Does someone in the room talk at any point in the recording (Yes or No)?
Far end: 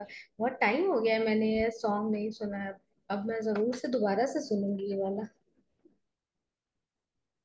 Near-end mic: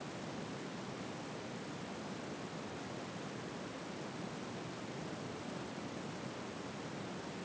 No